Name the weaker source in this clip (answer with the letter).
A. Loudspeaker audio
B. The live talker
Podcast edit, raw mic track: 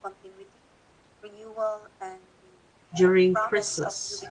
A